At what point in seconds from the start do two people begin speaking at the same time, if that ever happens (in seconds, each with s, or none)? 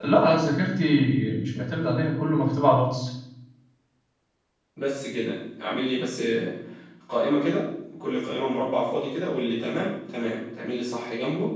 none